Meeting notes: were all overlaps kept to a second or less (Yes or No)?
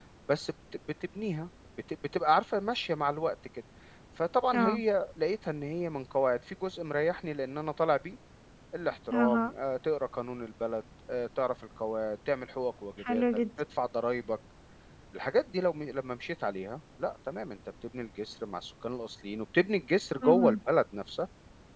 Yes